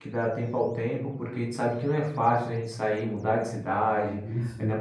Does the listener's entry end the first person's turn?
No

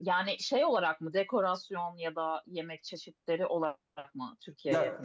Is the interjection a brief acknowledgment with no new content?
No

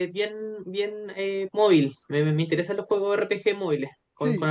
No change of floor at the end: No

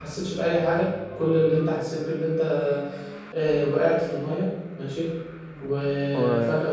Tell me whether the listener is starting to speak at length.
No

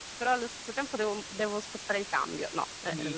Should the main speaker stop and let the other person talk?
Yes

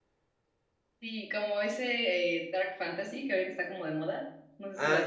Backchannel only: No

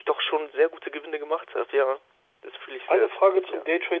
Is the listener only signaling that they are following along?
No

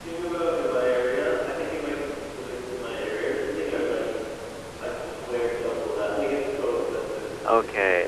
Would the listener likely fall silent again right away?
No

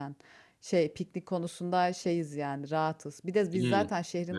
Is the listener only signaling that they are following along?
Yes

